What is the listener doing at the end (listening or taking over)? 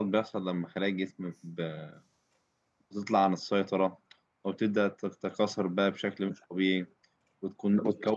listening